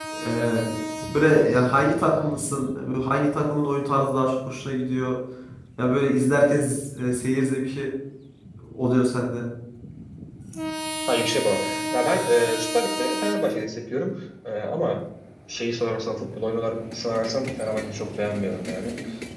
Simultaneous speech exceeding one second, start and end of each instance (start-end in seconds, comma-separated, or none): none